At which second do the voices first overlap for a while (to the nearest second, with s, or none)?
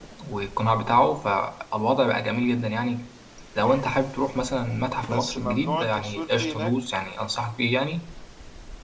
5 s